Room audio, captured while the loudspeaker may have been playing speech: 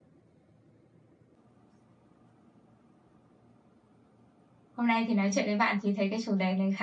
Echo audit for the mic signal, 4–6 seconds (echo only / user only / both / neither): user only